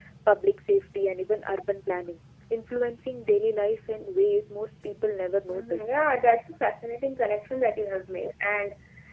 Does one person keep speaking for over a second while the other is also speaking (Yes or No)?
No